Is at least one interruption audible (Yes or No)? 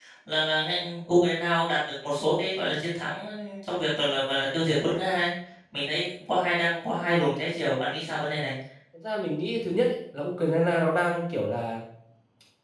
No